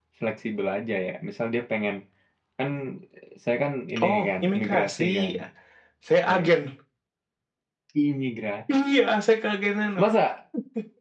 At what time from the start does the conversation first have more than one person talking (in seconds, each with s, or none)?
4.0 s